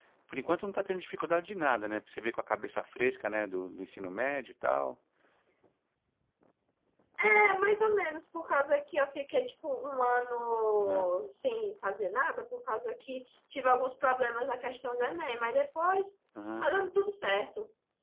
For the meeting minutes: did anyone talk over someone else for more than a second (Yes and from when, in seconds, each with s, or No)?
No